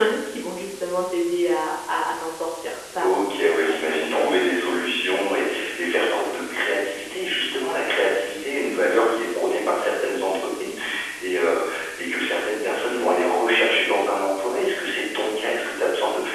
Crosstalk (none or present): present